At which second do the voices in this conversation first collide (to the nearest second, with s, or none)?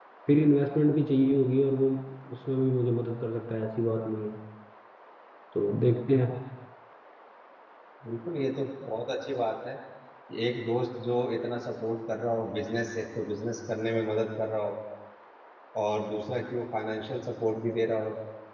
none